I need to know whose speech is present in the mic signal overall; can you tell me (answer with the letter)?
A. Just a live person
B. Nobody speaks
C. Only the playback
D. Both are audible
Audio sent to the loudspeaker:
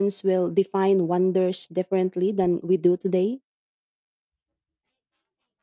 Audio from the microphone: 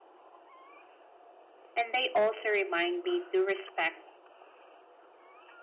A